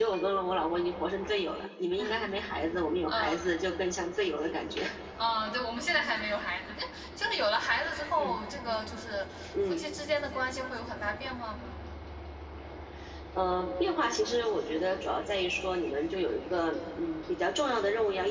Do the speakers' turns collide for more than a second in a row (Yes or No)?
No